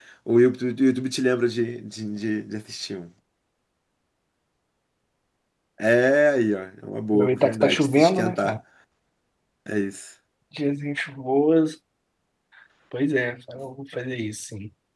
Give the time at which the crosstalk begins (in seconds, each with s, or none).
7.1 s